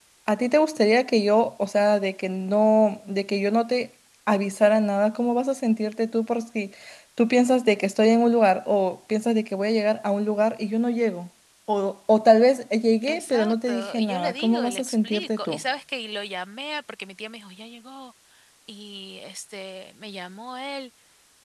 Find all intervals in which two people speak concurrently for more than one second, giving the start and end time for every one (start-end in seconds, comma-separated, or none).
13.1-15.6